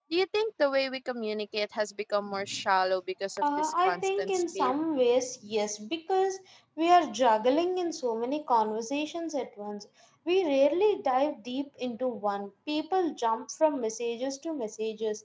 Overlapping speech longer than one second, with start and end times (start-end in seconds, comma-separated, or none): 3.4-4.7